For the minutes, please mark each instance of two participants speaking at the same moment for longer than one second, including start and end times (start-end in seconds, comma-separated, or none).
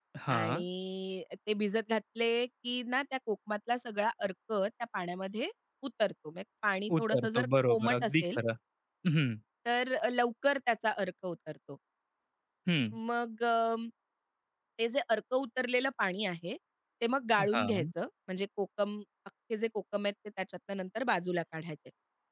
7.0-8.4